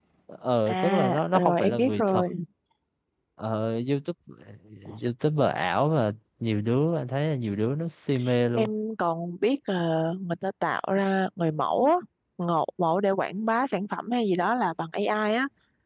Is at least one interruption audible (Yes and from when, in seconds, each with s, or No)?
Yes, from 0.7 s